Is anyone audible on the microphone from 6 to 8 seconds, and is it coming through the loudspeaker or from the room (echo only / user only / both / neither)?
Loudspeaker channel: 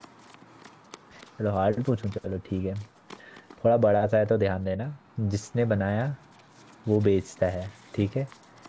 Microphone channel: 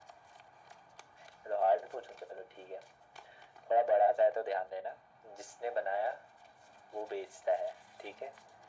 echo only